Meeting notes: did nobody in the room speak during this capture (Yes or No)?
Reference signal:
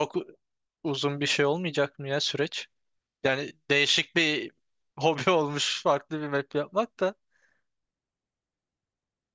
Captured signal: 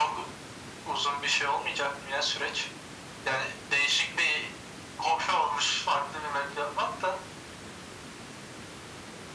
Yes